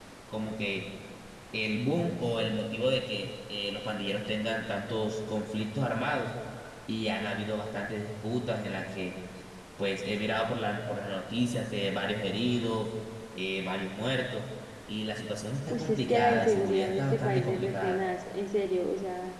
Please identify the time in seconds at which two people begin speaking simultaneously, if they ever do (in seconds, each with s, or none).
15.7 s